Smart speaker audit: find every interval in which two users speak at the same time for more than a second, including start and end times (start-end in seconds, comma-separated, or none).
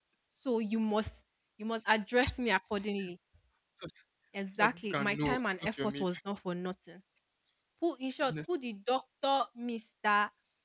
4.6-6.1